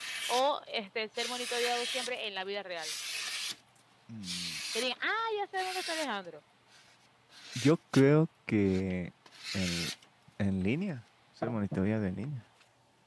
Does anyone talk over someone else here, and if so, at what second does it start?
none

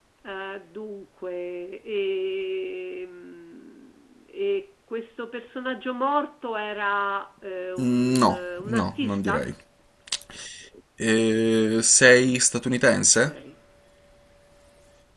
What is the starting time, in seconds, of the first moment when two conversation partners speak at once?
7.8 s

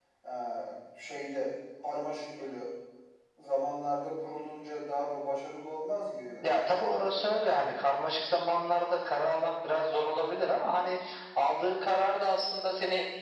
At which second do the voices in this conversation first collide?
none

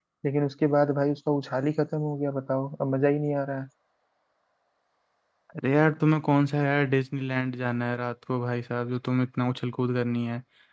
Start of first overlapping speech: none

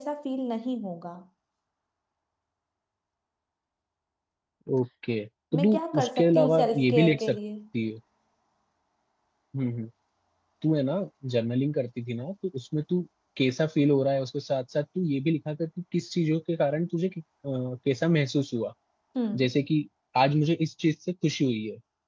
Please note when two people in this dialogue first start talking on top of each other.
5.5 s

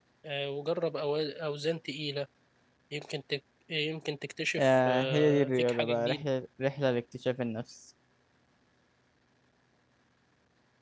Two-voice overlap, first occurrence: 4.6 s

